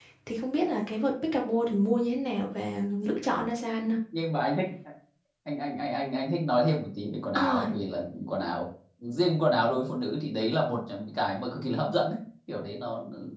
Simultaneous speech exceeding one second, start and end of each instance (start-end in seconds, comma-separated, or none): none